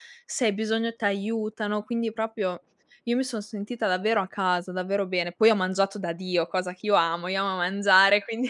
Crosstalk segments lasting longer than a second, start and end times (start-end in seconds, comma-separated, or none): none